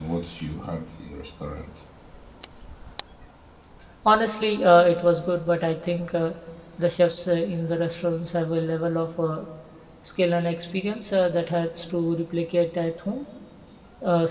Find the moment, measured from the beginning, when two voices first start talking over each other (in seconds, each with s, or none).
none